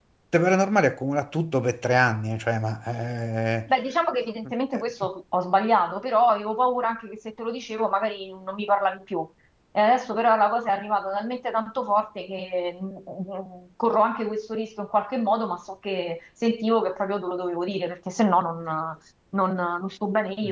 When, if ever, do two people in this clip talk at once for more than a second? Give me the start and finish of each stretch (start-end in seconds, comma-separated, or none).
none